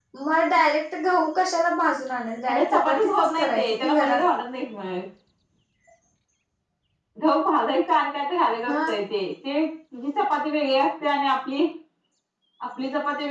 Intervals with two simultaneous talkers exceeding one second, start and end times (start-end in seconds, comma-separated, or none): 2.5-4.2